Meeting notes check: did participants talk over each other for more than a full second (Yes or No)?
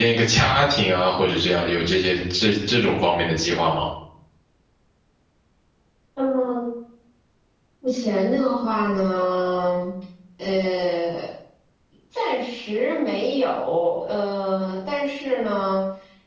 No